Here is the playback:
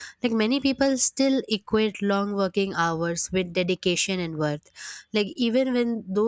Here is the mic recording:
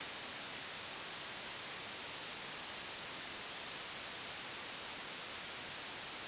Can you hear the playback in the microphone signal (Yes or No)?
No